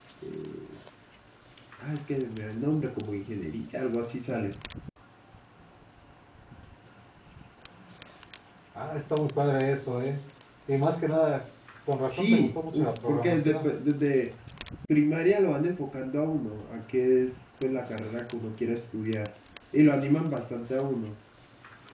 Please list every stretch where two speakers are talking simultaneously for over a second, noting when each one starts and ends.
12.2-13.7

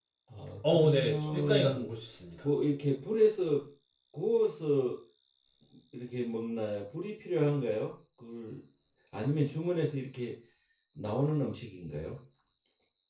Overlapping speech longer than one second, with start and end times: 0.7-1.9

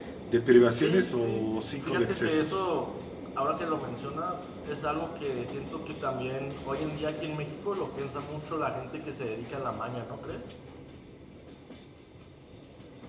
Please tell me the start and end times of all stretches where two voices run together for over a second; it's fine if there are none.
0.7-2.7

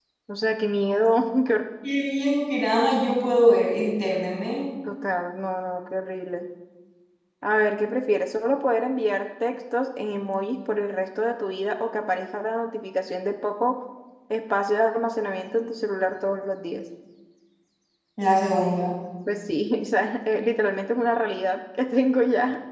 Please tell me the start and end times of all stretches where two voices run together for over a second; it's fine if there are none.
none

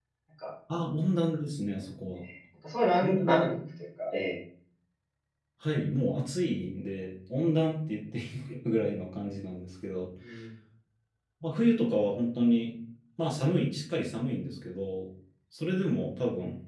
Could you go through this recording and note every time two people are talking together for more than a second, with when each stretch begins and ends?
none

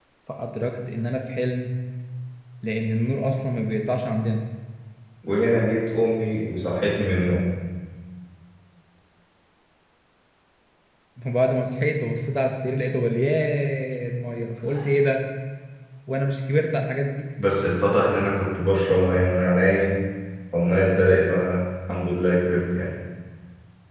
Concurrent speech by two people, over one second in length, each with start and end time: none

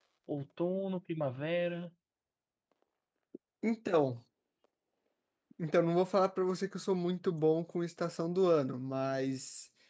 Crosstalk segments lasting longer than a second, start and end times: none

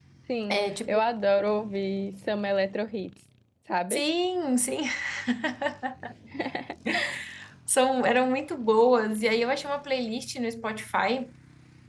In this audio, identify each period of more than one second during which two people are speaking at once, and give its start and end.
none

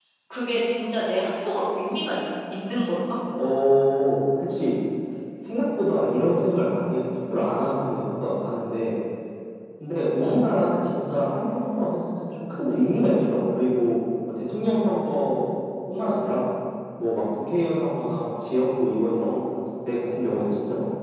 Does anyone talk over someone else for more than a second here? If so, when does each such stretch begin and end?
none

